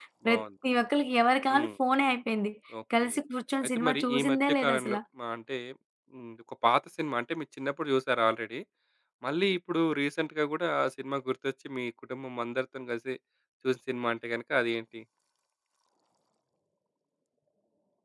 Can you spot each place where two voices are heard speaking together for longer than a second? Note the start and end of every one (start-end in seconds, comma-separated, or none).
3.8-5.0